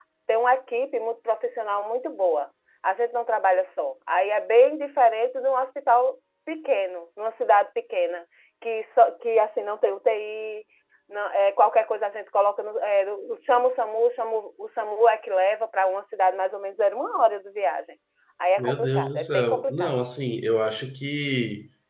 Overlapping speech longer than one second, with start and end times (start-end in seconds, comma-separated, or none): 18.6-20.0